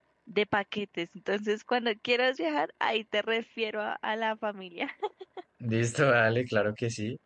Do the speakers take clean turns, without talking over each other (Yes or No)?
Yes